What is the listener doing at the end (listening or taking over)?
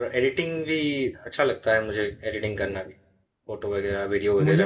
taking over